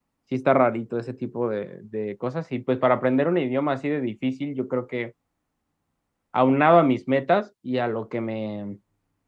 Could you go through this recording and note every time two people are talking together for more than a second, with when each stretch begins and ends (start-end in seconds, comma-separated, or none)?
none